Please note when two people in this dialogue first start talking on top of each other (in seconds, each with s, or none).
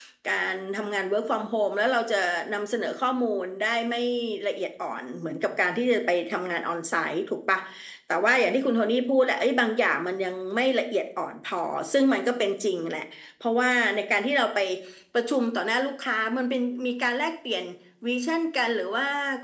none